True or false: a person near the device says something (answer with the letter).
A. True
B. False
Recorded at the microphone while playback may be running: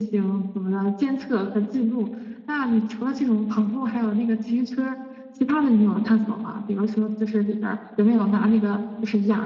B